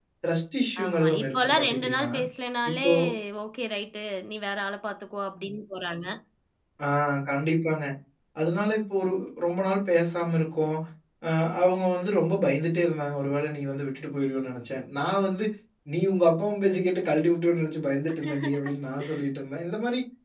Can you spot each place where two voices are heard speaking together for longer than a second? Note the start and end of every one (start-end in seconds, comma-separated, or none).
0.8-2.1